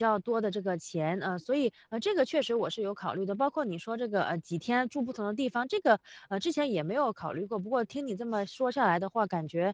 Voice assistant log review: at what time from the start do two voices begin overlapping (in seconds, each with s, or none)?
none